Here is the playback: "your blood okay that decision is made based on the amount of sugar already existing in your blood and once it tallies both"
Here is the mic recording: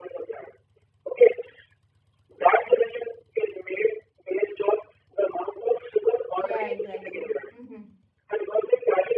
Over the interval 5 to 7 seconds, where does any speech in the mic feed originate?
both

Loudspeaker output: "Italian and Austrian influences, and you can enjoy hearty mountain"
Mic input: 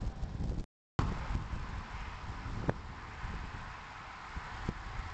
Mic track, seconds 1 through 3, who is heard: neither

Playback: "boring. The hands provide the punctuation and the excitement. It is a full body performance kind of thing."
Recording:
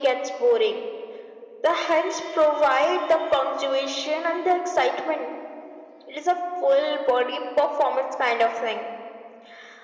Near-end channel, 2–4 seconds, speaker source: echo only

